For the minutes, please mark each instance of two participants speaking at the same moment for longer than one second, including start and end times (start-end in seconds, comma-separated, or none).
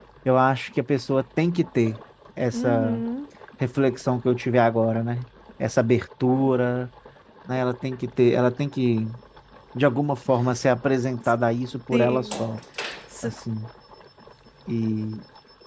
none